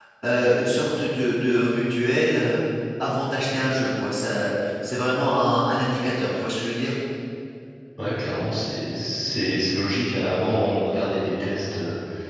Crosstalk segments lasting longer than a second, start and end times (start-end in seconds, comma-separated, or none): none